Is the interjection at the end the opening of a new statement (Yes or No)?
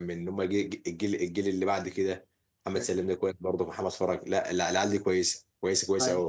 Yes